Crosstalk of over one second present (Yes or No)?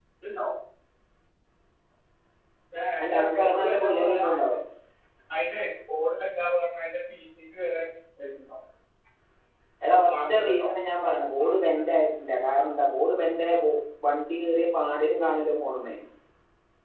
Yes